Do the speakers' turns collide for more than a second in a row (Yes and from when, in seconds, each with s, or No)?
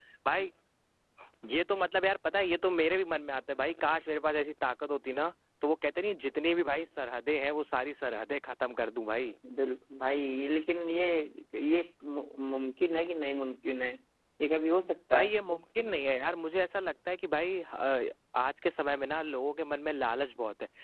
No